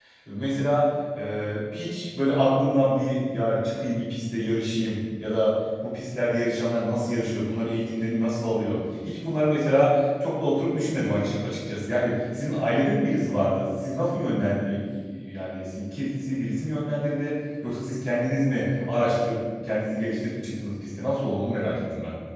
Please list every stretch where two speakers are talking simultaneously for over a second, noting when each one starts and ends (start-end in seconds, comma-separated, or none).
none